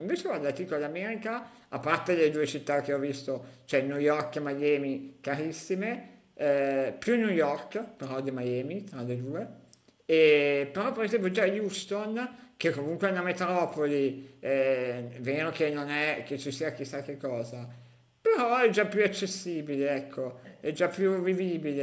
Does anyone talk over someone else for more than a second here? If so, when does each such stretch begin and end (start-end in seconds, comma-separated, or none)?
none